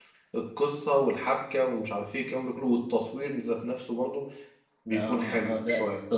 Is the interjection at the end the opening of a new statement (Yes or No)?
Yes